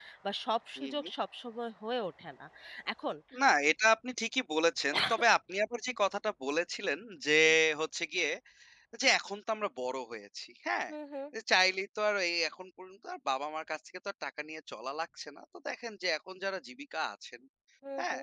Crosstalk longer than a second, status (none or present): none